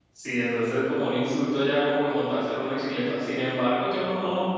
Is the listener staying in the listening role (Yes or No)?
Yes